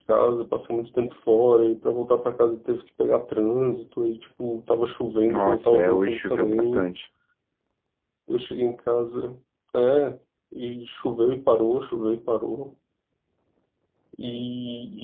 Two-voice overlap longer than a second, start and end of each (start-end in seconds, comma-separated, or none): 5.3-6.9